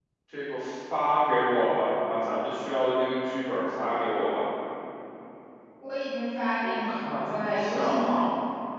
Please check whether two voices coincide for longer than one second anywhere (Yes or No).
Yes